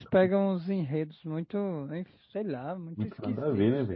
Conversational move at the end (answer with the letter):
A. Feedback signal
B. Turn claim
B